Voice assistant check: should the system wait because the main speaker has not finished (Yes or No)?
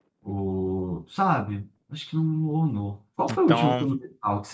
Yes